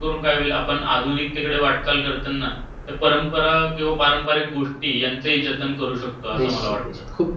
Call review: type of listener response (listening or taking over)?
taking over